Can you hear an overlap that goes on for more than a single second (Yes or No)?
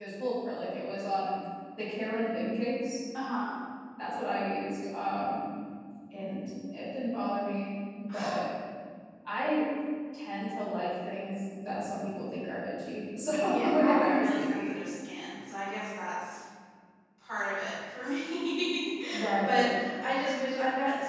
Yes